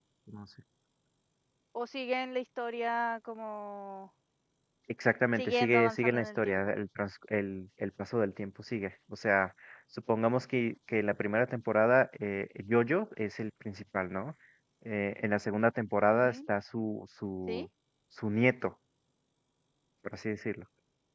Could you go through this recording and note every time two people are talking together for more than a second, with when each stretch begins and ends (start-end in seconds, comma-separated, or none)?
5.4-6.6